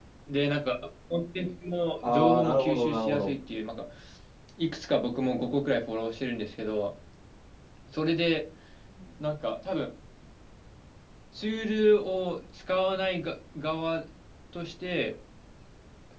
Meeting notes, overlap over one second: present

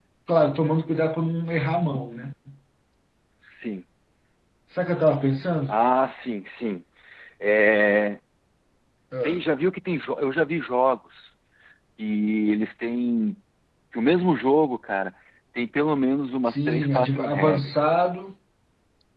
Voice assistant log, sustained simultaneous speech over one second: present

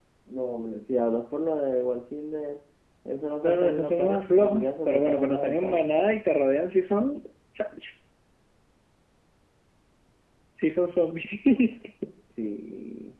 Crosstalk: present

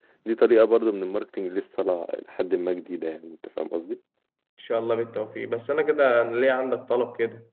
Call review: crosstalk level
none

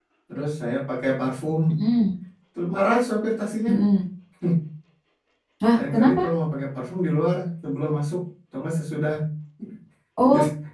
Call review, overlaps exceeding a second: none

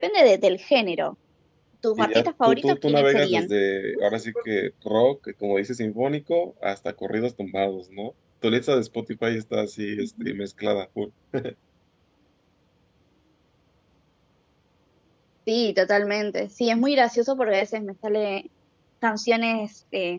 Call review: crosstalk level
present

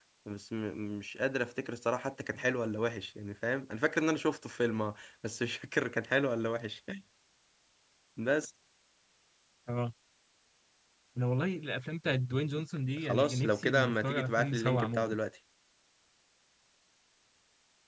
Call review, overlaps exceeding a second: present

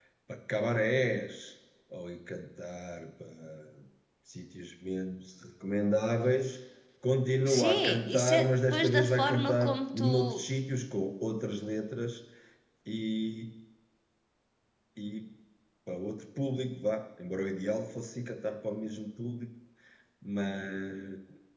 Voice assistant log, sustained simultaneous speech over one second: present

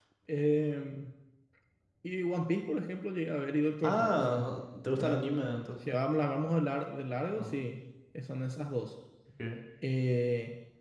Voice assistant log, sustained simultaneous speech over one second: none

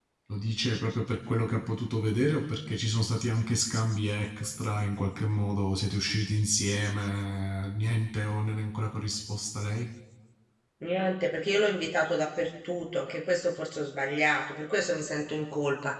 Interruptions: none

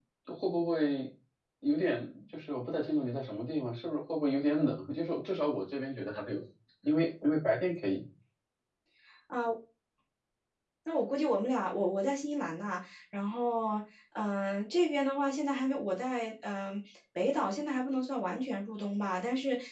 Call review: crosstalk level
none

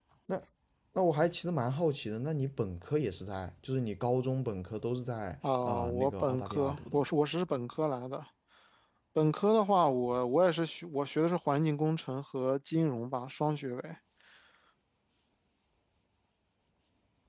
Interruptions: present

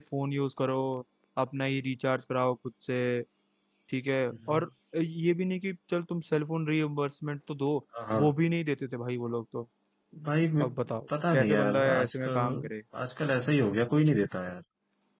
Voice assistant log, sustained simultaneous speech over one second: present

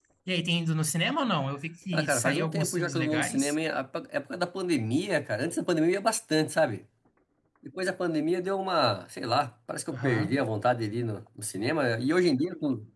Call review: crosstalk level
present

